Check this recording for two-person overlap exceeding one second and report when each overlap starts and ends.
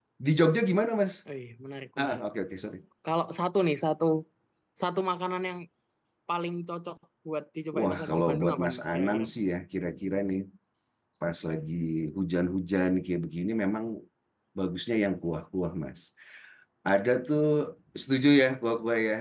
7.8-9.2

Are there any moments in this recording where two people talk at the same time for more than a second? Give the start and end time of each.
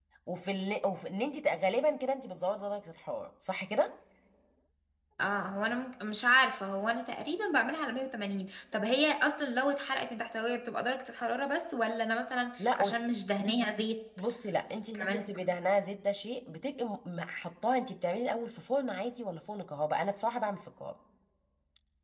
none

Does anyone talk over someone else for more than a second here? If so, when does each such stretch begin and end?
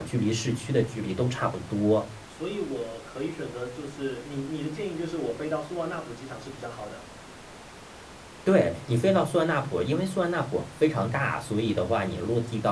none

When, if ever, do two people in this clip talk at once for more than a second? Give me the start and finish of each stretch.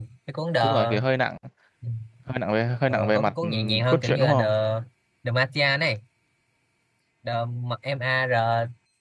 2.9-4.4

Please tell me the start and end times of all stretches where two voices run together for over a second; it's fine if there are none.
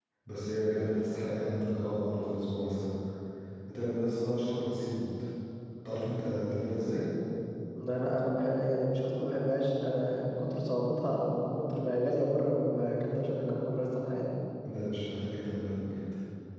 none

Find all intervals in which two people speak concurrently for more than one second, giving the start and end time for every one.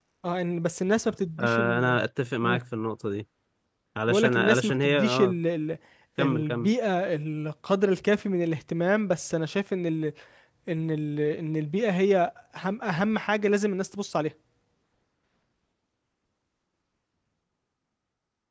4.1-5.4

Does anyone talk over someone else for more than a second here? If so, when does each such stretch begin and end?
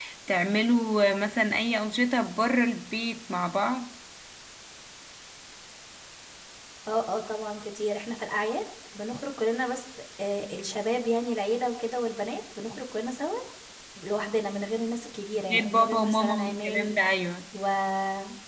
15.5-17.0

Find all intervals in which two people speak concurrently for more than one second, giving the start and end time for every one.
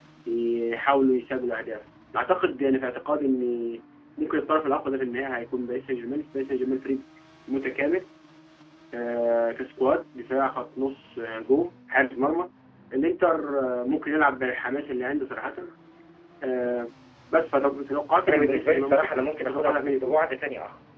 18.3-20.2

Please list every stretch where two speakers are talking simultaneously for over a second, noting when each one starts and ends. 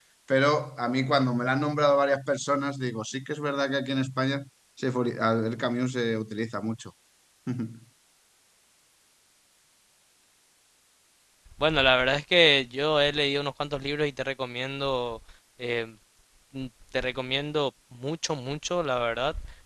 none

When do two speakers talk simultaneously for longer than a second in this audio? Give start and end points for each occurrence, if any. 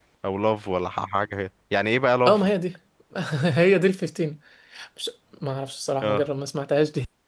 none

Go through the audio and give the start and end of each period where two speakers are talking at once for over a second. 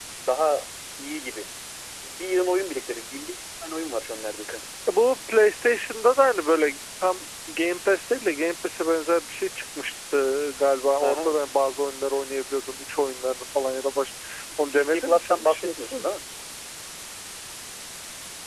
14.7-16.1

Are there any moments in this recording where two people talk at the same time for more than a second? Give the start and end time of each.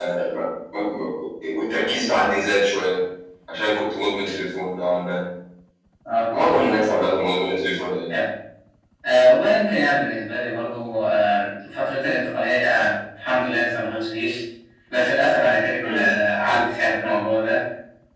none

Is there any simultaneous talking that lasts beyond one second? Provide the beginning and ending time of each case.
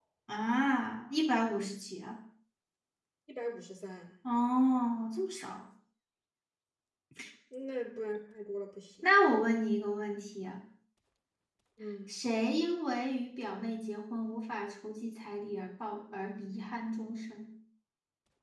none

